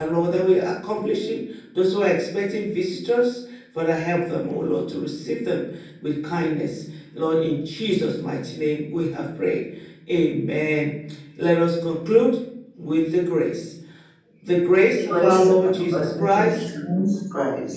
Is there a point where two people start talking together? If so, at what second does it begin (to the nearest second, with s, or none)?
15 s